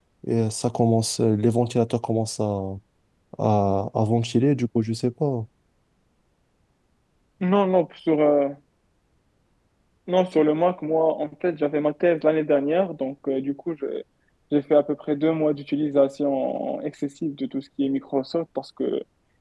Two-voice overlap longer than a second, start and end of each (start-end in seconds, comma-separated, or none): none